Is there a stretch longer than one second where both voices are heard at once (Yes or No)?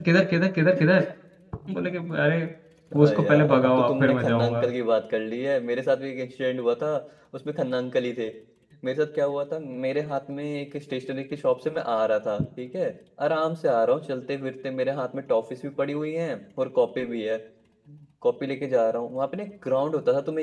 Yes